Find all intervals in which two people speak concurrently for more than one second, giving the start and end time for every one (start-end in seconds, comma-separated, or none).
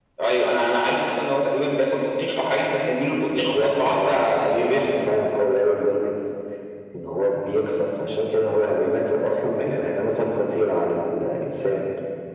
3.4-4.8